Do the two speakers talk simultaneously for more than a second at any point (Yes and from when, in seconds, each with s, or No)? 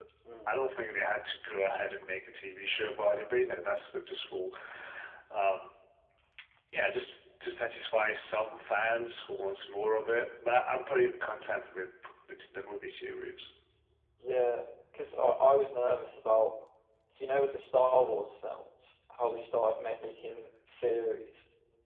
No